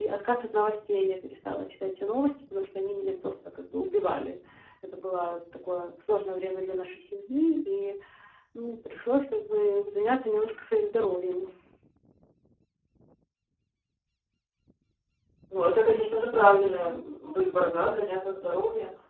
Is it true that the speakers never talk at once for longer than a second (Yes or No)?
Yes